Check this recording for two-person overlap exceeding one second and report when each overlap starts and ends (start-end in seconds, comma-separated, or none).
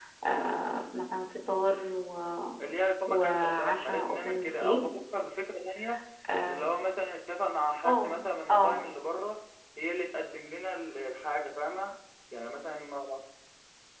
3.1-4.8